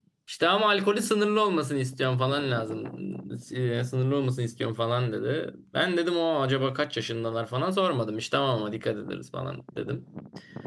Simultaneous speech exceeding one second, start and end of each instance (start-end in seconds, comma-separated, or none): none